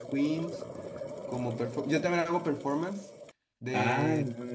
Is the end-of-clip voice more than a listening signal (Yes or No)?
Yes